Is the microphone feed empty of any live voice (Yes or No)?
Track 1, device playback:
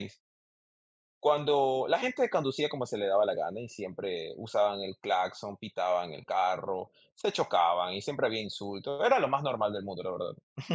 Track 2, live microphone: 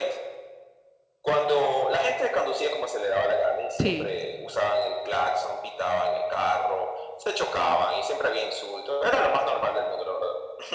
No